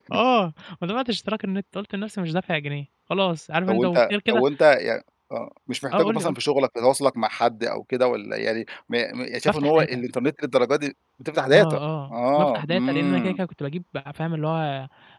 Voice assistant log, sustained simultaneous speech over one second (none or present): present